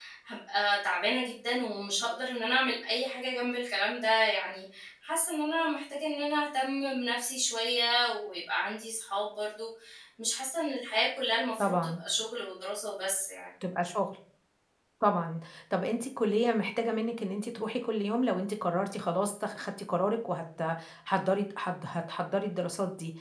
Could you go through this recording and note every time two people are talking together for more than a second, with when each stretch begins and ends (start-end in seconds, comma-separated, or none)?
none